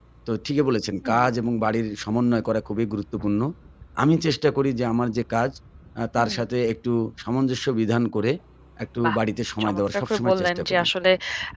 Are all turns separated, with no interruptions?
No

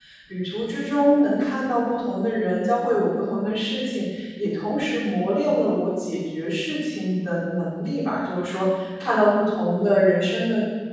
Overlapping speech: No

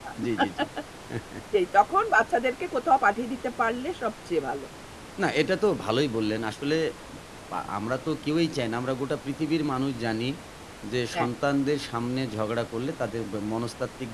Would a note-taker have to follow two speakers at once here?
No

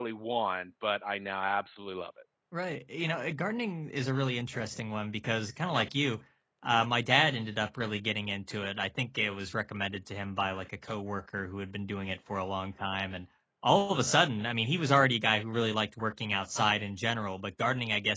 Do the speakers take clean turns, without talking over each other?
Yes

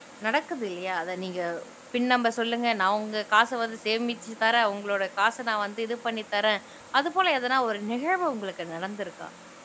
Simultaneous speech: No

